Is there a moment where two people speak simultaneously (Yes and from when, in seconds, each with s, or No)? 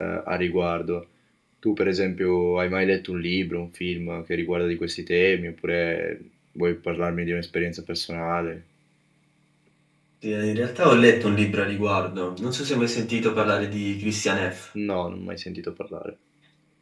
No